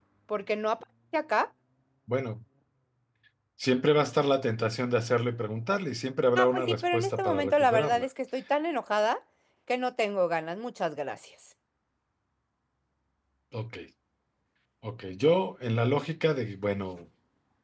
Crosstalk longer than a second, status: present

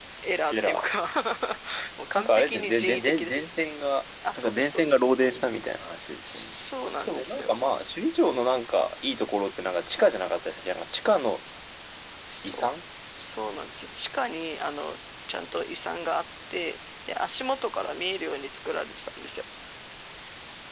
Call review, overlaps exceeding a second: present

